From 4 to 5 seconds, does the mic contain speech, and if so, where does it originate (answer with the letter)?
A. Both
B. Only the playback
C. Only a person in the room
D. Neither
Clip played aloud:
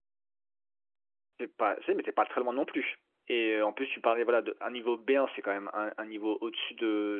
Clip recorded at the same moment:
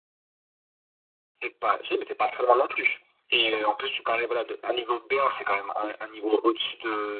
B